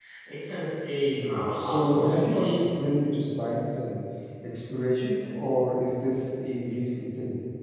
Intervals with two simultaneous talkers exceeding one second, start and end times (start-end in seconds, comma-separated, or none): 1.1-2.7